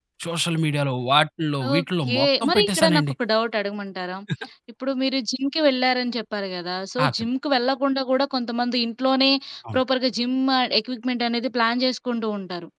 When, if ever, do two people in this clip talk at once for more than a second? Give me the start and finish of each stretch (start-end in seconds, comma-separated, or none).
1.8-3.1